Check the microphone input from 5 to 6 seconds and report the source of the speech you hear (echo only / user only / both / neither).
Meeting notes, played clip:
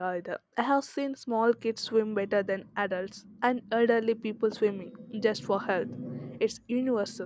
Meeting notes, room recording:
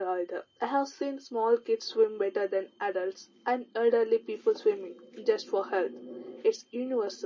echo only